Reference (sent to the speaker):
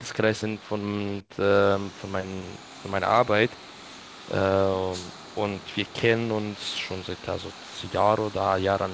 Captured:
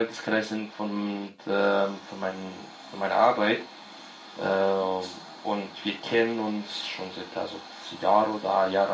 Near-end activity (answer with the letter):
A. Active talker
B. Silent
B